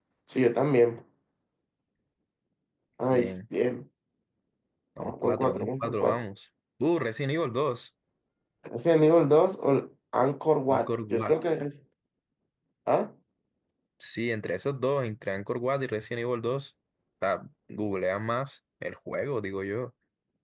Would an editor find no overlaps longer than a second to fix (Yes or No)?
No